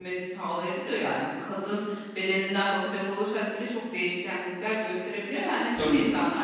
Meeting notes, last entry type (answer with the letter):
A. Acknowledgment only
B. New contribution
A